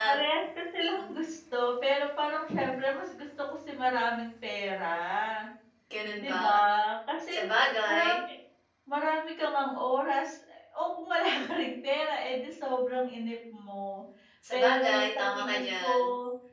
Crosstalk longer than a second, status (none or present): present